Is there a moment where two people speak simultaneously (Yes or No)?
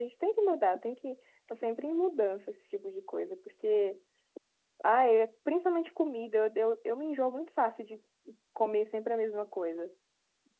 No